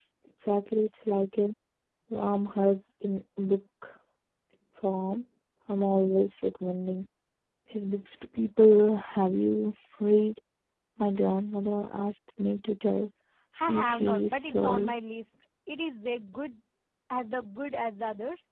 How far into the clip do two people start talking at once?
13.7 s

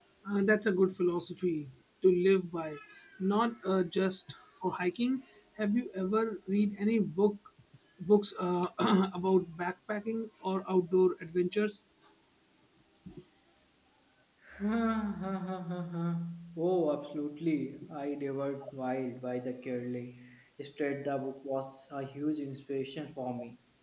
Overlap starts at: none

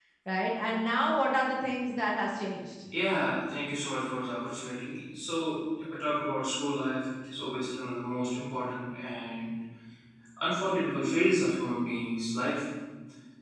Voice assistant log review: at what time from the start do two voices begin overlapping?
none

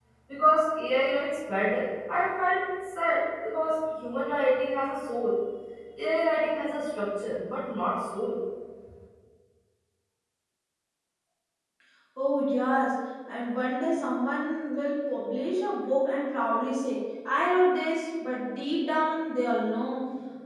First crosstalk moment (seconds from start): none

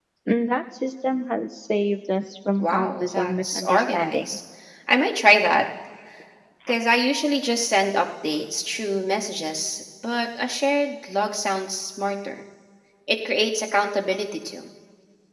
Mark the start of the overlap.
2.6 s

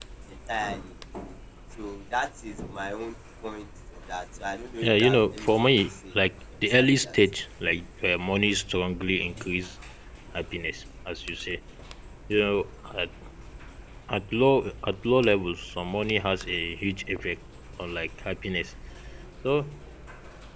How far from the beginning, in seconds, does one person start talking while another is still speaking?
4.8 s

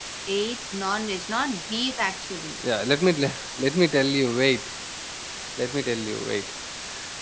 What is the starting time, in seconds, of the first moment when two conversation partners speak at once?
none

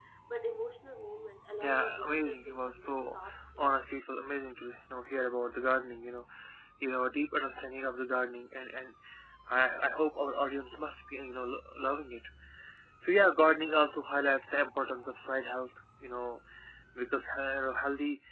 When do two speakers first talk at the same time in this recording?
1.6 s

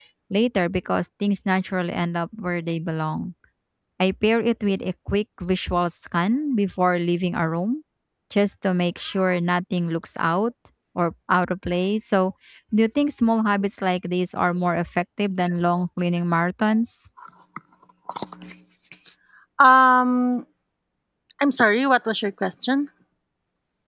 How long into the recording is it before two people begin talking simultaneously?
none

